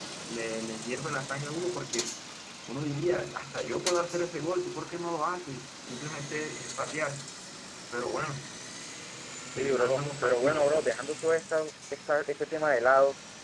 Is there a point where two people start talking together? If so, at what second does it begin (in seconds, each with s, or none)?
9.5 s